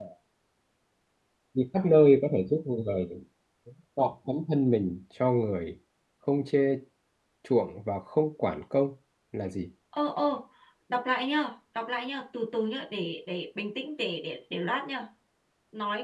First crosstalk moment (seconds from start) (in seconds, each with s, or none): none